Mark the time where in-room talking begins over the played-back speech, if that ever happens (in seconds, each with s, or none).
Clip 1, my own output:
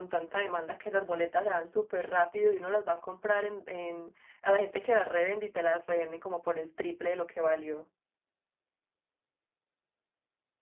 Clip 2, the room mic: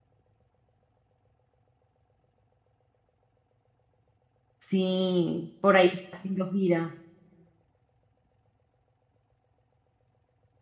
4.6 s